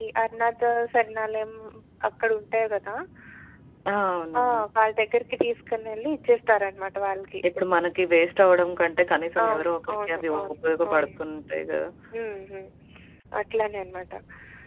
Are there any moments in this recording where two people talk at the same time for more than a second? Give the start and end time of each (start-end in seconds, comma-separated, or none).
9.4-11.1